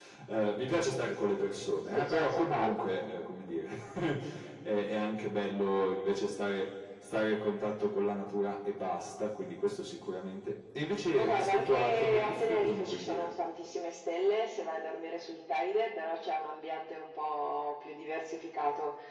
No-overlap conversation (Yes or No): No